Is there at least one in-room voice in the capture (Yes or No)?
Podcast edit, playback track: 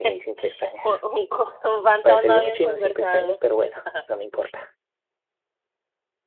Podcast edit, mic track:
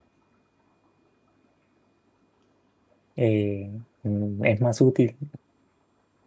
Yes